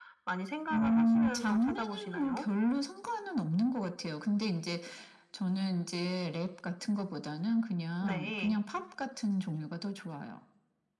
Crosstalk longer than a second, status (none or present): present